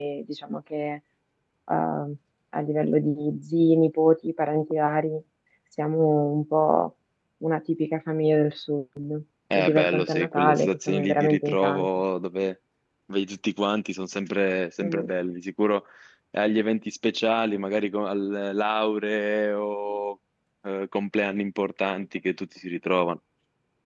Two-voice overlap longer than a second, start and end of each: 9.5-11.9

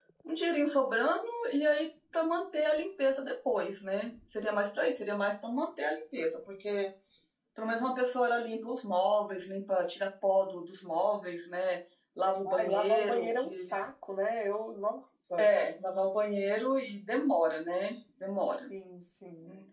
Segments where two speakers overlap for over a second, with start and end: 12.5-13.7

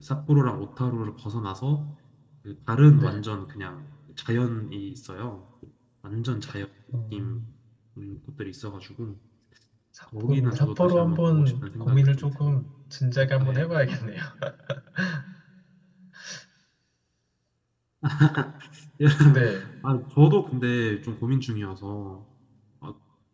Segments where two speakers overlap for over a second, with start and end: 10.3-12.5

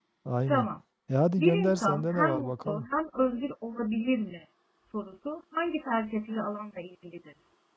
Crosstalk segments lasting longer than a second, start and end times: 1.4-2.9

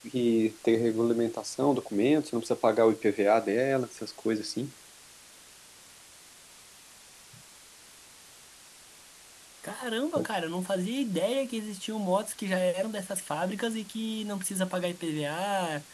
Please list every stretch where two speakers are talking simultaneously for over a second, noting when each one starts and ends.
none

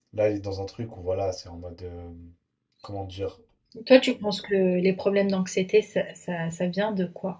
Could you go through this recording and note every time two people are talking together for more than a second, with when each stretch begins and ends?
none

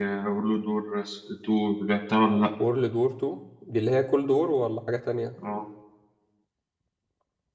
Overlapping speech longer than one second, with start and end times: none

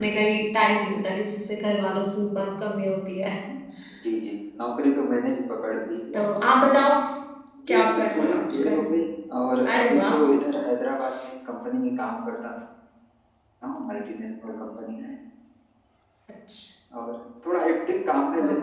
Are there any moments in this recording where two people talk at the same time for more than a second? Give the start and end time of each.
7.7-8.9

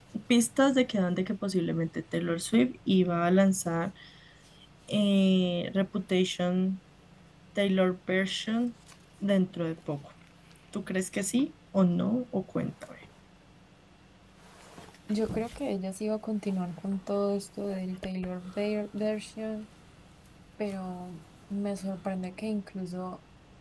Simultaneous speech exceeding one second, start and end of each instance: none

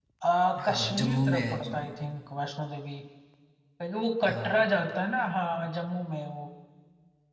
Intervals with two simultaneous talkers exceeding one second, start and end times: 0.7-1.9

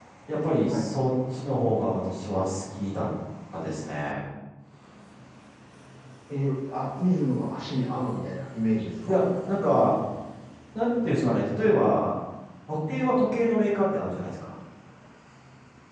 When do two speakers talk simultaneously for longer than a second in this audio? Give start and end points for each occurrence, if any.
none

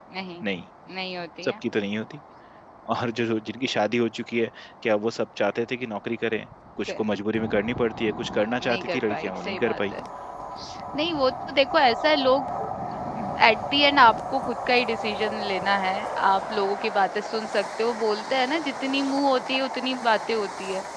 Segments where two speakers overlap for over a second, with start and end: 8.6-9.9

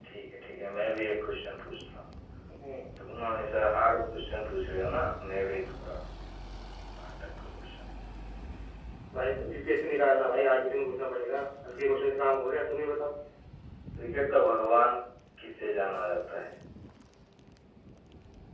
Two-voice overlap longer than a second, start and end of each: none

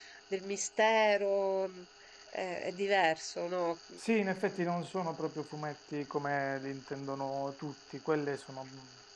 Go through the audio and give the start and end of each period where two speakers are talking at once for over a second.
none

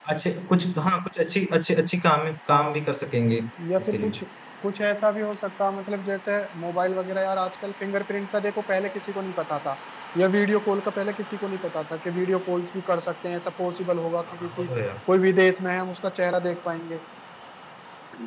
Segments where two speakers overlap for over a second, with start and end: none

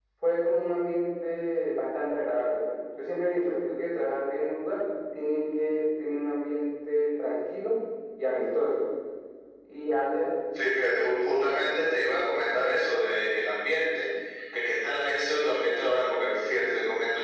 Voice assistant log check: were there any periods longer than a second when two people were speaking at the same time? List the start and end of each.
none

